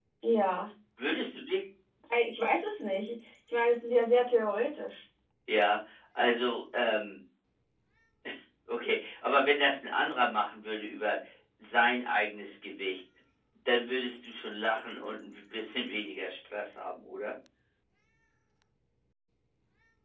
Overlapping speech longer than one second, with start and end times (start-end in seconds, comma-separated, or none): none